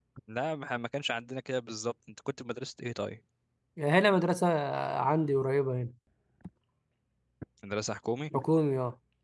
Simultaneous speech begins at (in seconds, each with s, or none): none